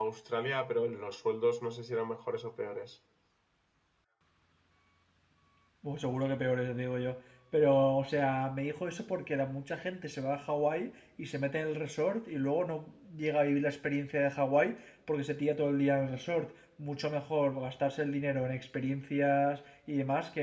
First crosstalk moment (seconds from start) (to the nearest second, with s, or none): none